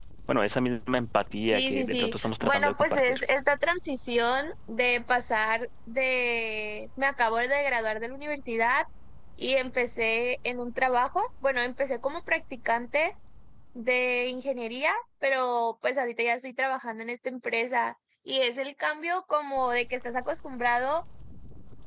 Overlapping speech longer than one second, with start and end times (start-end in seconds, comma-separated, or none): 1.5-3.2